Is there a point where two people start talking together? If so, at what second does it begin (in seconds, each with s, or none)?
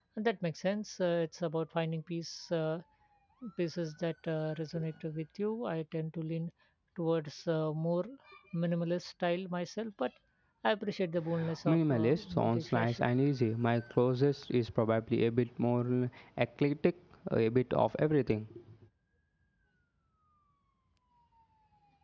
11.7 s